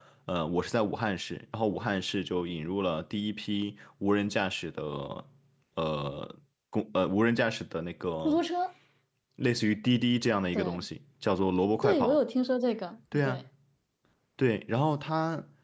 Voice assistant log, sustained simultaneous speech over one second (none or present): none